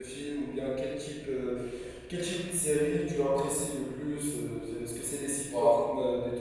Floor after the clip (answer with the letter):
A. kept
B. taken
A